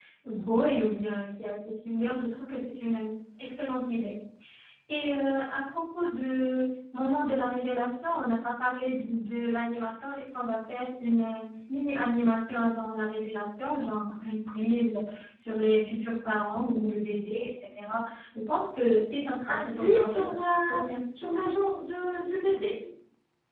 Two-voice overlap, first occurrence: 19.5 s

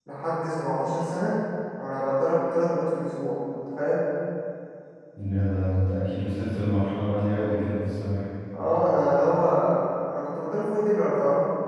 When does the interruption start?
none

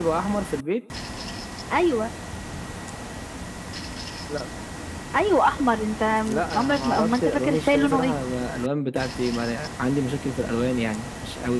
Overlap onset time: 6.5 s

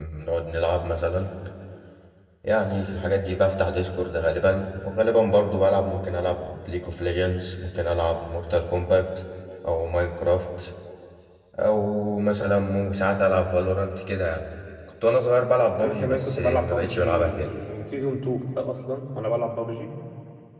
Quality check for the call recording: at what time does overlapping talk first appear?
15.8 s

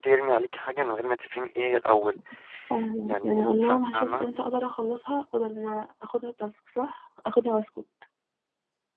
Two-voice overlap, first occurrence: 3.0 s

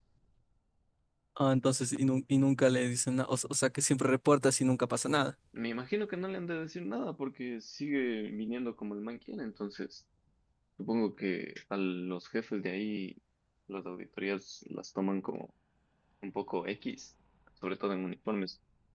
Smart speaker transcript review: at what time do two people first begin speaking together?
none

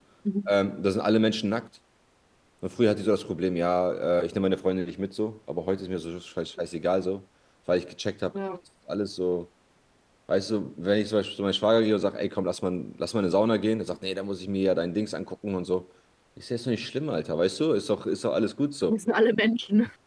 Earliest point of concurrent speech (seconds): none

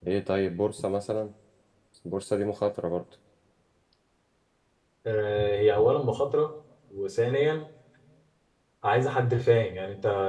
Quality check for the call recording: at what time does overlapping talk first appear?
none

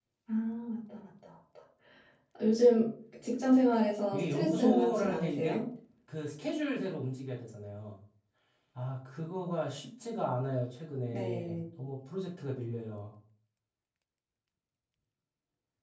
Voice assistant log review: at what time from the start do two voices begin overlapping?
4.1 s

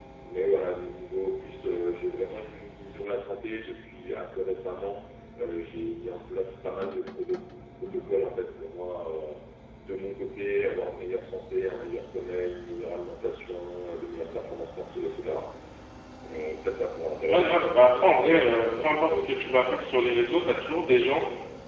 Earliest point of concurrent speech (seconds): 17.3 s

